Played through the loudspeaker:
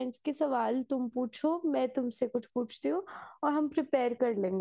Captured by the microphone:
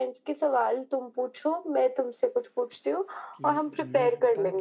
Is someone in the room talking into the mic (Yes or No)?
Yes